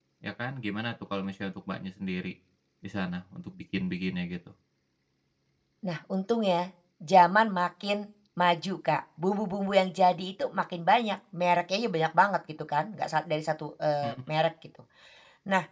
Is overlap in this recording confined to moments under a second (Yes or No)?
Yes